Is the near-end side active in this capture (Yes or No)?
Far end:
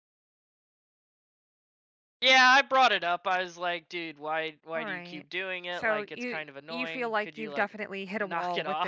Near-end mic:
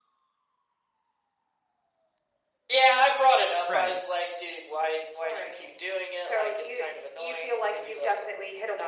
Yes